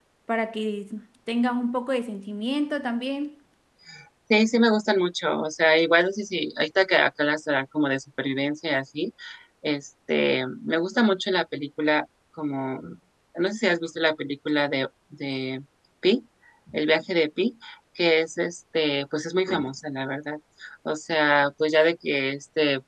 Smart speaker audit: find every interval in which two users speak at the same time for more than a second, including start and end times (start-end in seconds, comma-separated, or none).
none